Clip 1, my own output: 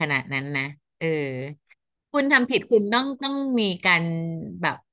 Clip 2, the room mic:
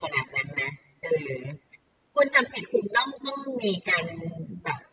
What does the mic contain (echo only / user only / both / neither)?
echo only